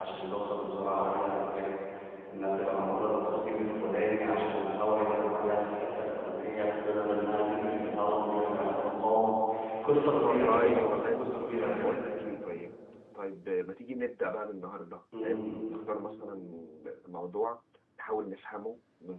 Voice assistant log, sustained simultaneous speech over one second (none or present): present